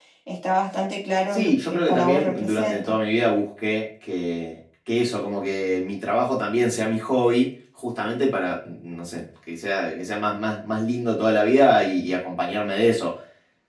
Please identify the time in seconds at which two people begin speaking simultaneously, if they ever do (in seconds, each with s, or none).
1.3 s